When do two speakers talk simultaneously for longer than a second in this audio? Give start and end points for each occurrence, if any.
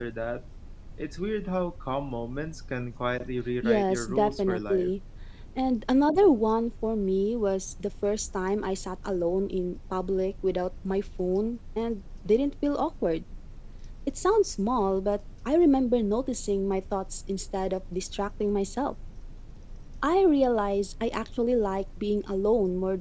3.6-4.9

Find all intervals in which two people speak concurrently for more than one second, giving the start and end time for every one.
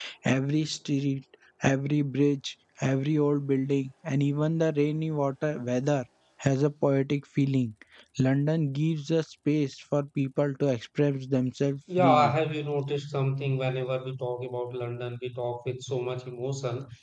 none

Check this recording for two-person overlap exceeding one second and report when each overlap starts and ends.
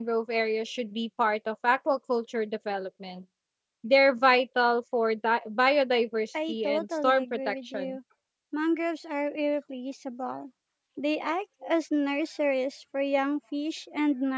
6.5-8.0

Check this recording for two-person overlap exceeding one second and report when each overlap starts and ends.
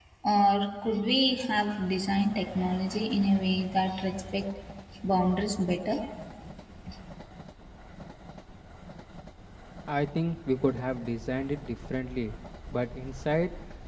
none

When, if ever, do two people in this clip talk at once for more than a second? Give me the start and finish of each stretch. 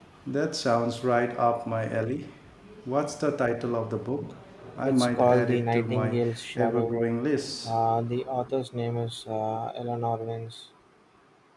4.9-6.2

